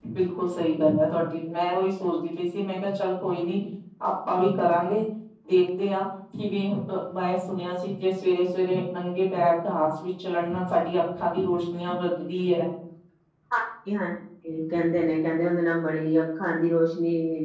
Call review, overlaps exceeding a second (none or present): none